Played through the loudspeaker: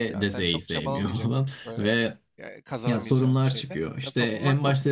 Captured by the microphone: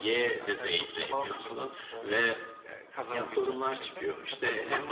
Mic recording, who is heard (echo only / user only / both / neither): echo only